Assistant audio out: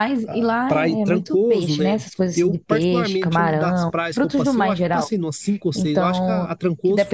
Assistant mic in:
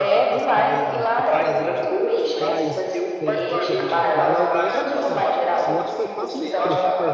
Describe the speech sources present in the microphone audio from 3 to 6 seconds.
both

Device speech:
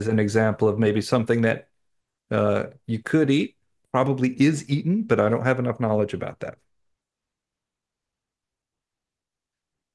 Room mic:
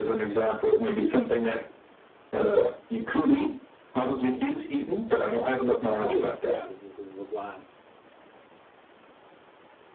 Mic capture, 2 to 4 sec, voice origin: echo only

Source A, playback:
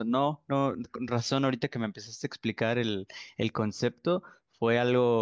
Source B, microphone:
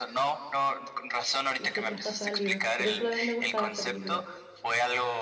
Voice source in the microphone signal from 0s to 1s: echo only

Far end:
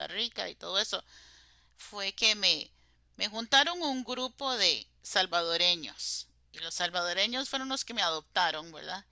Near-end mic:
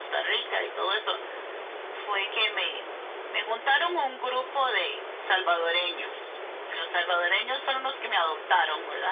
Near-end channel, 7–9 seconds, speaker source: echo only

